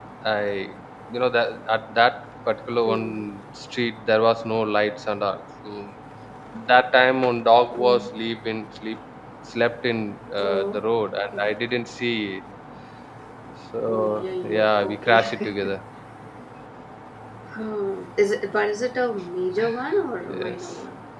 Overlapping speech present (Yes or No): Yes